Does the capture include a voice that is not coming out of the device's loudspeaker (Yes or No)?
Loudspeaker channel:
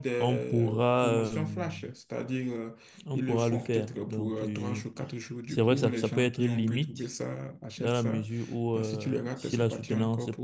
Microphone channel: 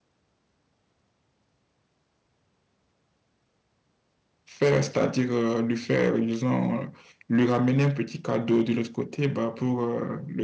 Yes